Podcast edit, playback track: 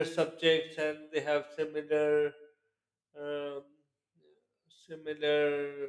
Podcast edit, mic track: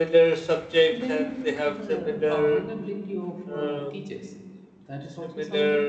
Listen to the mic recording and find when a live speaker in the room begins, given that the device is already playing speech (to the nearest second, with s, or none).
1 s